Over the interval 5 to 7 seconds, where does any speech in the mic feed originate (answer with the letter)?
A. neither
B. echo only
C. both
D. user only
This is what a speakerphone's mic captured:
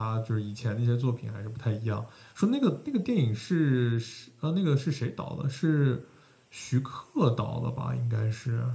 D